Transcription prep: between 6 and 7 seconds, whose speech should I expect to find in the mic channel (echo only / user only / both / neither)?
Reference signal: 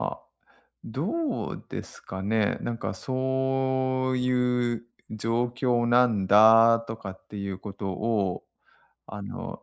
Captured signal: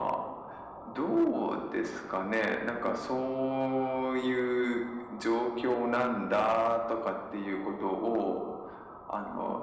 echo only